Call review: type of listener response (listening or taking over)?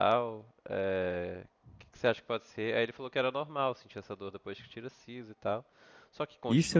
taking over